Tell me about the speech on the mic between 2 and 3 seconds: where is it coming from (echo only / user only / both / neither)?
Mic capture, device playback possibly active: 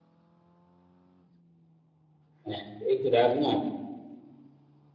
user only